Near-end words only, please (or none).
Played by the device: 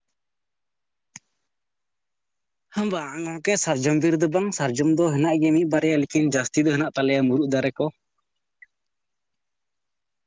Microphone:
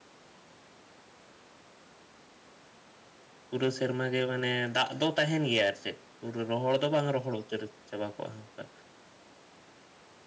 ᱯᱩᱨᱟᱹ ᱥᱮᱨᱢᱟ ᱜᱮ ᱢᱟᱱᱮ ᱫᱟᱜ ᱫᱚ ᱛᱟᱦᱮᱱ ᱜᱮᱭᱟ ᱟᱨ ᱪᱮᱫ᱾ ᱯᱩᱨᱟᱹ ᱨᱚᱦᱚᱲ ᱫᱚ ᱵᱟᱝ ᱨᱚᱦᱚᱲᱚᱜᱼᱟ᱾ ᱩᱛᱟᱹᱨ ᱪᱟᱵᱟ ᱠᱚᱜᱼᱟ ᱚᱱᱠᱟ